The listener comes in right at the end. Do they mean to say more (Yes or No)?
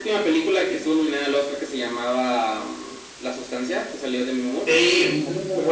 Yes